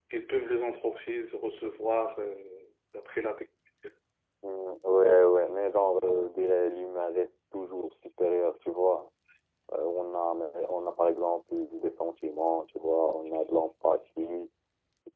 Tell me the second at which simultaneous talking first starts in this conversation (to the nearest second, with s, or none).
none